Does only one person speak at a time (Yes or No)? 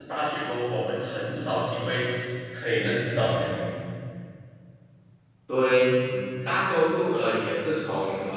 Yes